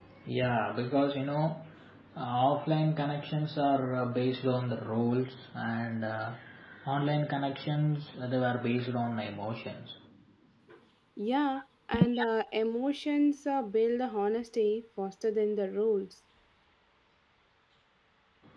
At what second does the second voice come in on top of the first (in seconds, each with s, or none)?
none